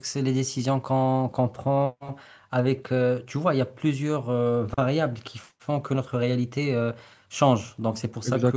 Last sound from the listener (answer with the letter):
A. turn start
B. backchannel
B